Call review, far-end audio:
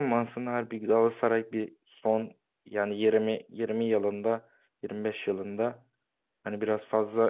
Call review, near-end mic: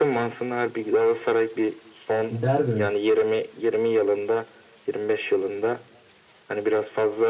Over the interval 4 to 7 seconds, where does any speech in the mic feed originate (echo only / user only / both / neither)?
echo only